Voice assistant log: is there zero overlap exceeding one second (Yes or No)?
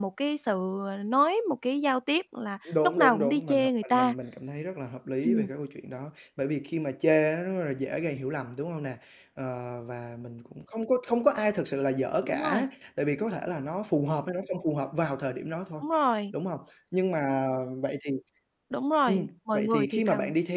No